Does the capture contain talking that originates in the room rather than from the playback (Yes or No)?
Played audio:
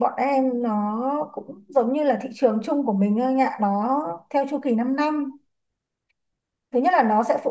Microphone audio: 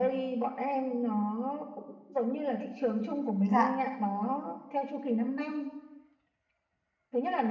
Yes